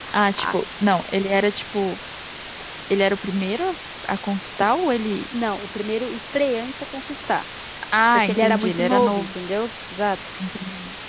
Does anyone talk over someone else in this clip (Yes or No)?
Yes